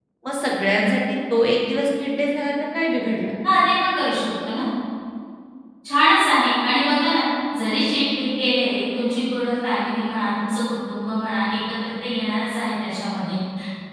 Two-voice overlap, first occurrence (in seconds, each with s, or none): none